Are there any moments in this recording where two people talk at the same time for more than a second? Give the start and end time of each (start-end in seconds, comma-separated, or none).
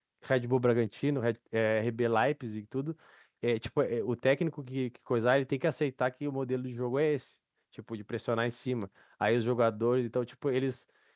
none